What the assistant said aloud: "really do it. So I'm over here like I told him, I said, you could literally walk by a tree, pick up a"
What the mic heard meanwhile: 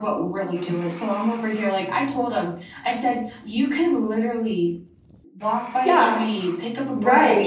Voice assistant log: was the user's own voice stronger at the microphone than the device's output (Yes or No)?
Yes